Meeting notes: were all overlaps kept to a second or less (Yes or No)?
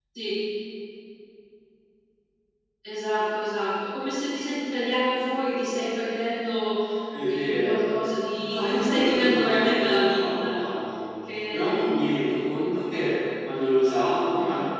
No